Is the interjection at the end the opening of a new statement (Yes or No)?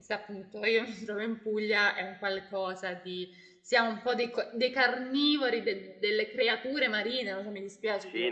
Yes